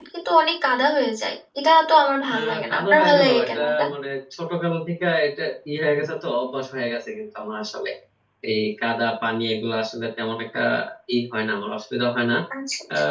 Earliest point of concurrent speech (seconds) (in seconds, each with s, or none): 2.3 s